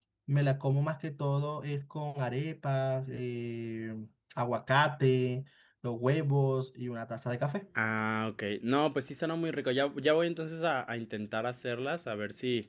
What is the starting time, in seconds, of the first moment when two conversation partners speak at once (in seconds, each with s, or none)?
none